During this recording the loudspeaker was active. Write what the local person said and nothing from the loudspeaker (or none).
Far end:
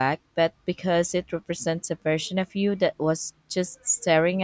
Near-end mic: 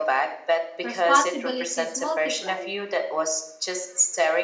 responsibilities multiplied.